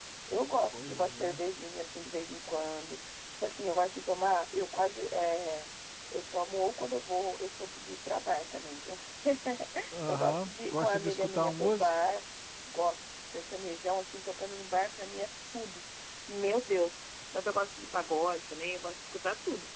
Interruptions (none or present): present